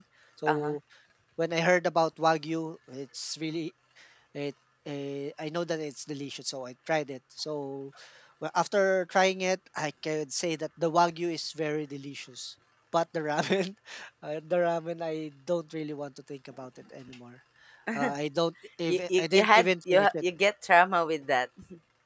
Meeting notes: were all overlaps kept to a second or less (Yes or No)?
No